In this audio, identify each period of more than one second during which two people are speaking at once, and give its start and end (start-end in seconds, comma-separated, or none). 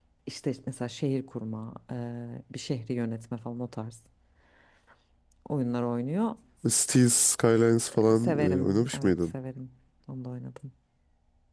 7.9-9.1